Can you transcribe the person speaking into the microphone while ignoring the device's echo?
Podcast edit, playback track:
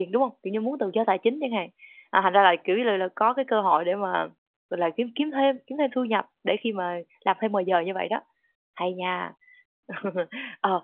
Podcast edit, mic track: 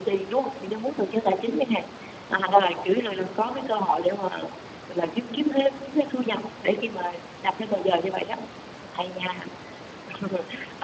none

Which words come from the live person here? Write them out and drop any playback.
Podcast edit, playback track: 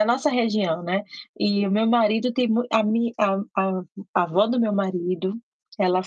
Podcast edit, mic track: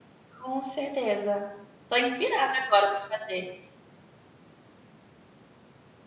Com certeza. Tô inspirada agora pra fazer.

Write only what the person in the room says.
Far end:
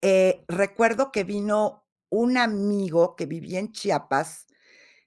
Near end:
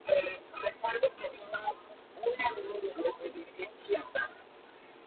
none

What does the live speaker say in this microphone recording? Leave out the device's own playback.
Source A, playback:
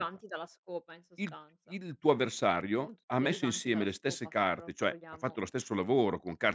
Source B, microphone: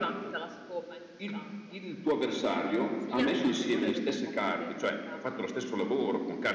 Sì, anche a cirulla, è esattamente così.

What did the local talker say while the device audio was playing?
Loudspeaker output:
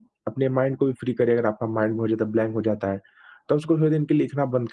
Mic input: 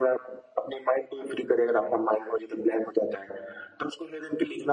none

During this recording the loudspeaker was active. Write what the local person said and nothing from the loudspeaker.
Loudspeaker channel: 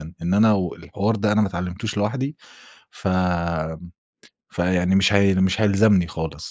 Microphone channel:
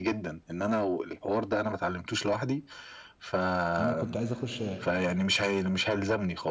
أنا كنت عايز أخُش

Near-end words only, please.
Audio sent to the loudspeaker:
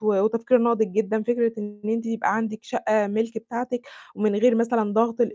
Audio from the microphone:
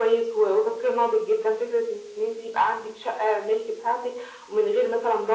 none

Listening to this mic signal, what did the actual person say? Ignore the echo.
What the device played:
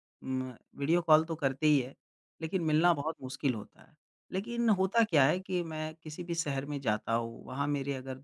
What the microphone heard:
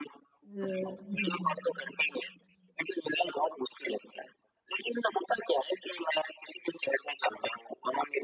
व हुँ, हुँ।

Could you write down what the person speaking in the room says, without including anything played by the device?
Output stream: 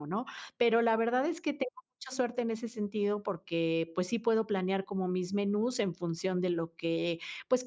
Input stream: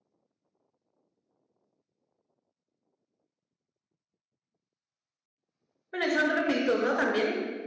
Bueno, y son rapiditos, ¿no? ¿También?

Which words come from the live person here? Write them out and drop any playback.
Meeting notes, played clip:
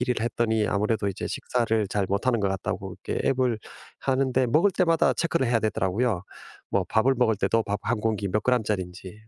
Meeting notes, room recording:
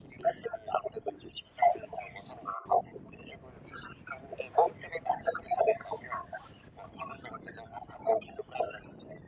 none

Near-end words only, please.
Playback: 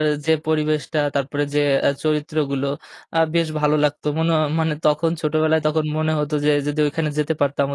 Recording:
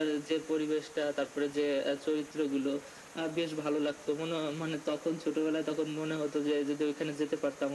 none

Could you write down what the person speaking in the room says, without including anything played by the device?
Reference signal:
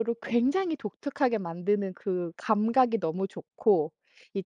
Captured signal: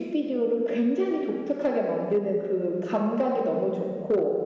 none

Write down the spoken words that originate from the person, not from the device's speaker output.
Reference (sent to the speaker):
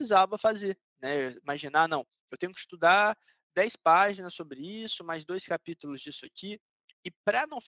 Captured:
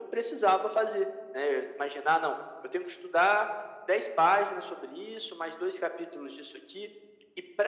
none

